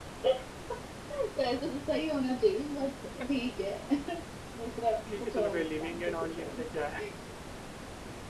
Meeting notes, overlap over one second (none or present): present